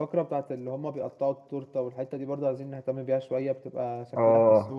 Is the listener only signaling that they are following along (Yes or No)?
No